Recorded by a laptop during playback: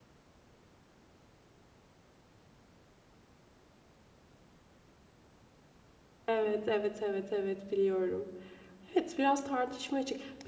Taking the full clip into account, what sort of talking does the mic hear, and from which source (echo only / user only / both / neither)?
user only